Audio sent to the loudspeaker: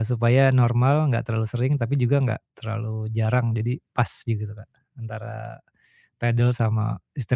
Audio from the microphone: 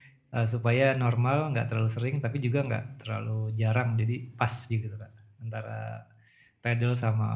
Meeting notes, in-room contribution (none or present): none